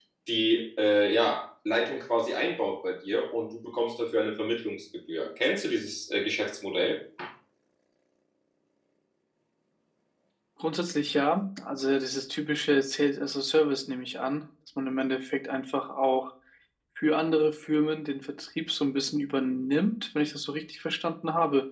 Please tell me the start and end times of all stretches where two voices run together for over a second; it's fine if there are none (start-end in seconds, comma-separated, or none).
none